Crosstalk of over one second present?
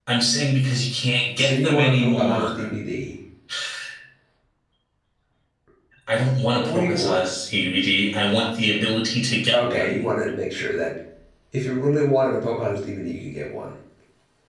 Yes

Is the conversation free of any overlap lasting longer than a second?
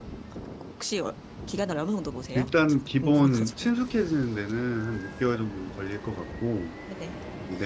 No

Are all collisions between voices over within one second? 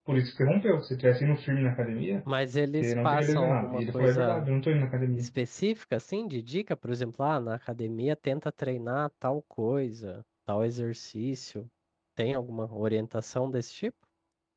No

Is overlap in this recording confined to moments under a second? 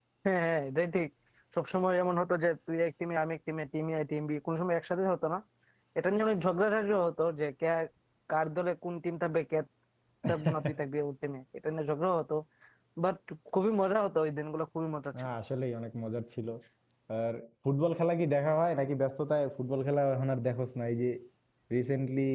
Yes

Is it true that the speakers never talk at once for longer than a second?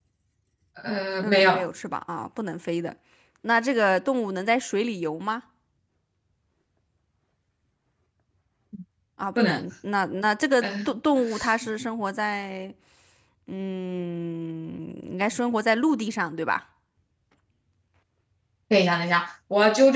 Yes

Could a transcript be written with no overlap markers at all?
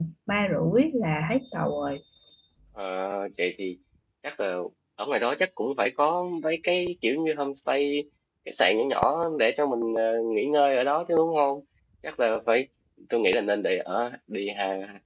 Yes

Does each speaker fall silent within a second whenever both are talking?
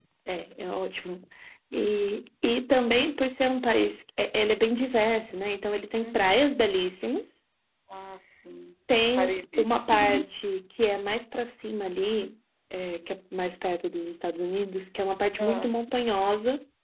Yes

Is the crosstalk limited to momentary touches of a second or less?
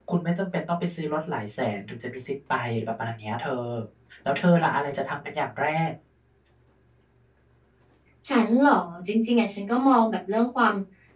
Yes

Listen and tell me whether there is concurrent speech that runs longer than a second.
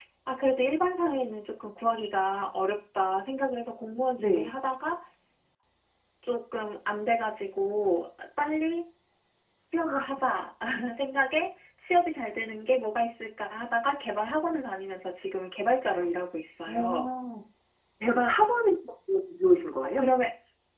No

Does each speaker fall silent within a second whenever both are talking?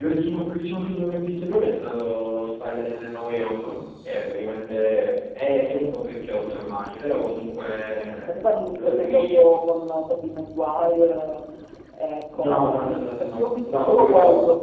No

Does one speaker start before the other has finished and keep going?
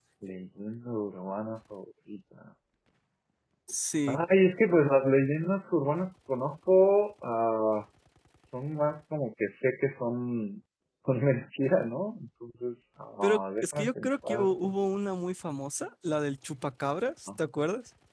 Yes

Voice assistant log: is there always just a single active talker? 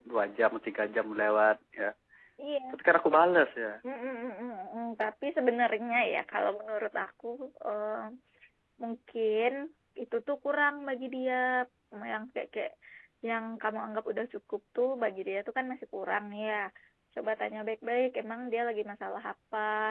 Yes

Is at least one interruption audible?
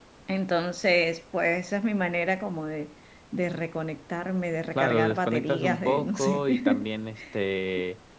Yes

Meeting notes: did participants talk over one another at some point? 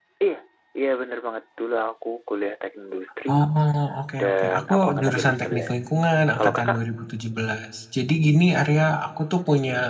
Yes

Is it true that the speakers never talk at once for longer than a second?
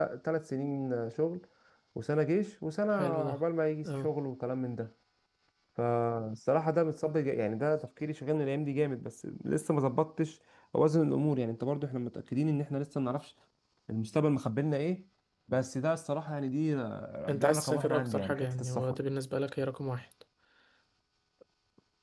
No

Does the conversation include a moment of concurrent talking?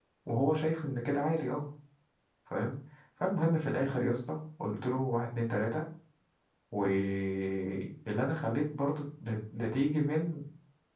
No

